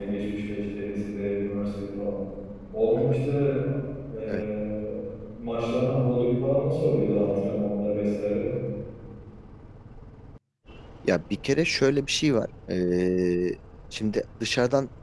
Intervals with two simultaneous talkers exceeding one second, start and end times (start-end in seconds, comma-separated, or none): none